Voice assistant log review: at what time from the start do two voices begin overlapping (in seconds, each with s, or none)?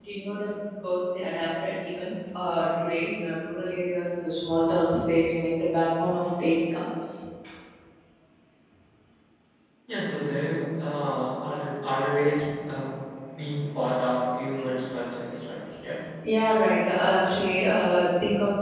none